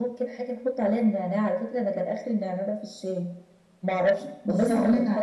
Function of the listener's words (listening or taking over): taking over